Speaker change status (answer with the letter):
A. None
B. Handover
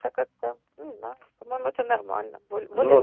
B